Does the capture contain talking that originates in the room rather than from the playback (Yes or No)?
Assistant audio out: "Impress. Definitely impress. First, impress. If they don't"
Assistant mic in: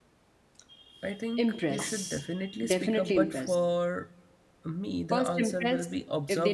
Yes